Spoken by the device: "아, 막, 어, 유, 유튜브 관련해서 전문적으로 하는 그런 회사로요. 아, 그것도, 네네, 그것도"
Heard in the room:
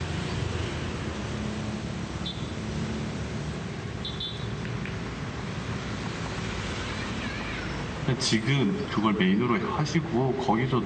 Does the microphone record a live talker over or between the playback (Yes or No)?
Yes